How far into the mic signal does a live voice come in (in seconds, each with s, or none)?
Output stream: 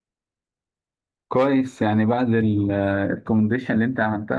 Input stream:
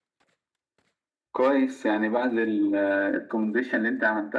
none